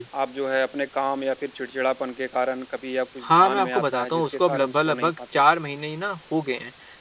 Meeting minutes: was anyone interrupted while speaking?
Yes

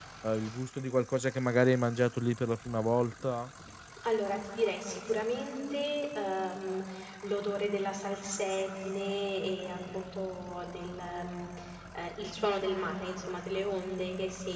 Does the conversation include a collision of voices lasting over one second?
No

